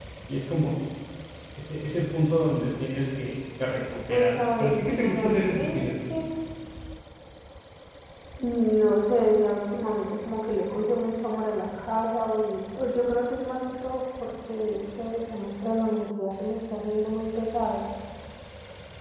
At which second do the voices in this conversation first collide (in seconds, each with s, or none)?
4.1 s